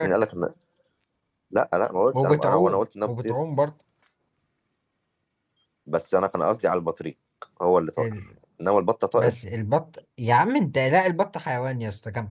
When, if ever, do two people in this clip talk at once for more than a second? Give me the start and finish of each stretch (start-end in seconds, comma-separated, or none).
2.1-3.3